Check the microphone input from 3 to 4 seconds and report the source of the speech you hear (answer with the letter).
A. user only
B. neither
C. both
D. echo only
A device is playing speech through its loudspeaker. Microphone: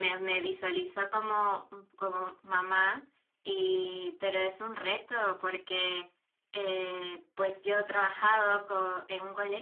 D